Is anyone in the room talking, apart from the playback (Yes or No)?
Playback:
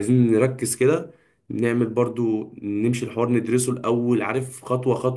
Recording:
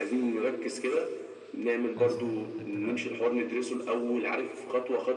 Yes